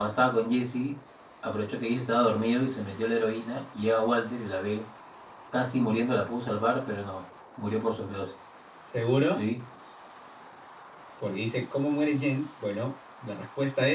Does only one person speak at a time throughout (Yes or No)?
Yes